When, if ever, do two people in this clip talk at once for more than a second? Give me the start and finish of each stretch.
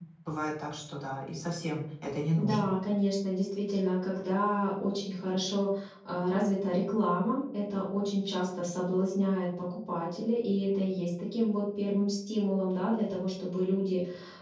none

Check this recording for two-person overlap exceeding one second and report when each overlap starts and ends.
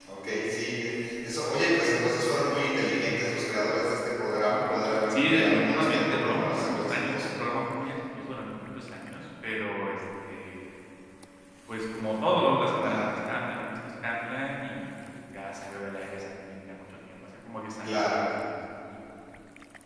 5.1-7.3

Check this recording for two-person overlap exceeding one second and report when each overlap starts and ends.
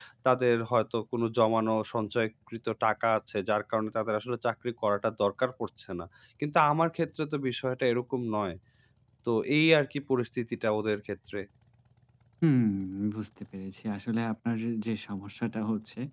none

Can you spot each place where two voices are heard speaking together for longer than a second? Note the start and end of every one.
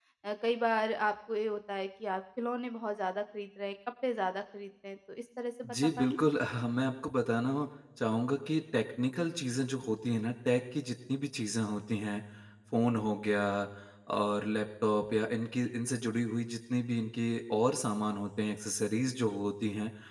none

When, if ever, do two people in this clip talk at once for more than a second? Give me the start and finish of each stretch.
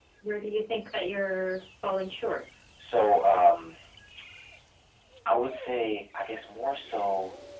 none

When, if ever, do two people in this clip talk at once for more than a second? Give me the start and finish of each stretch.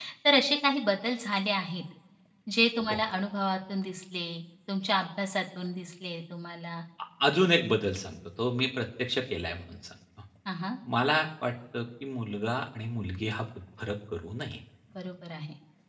none

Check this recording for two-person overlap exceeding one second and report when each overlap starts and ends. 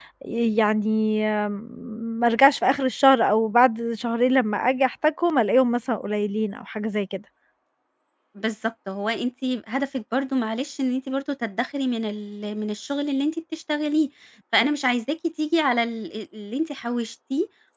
none

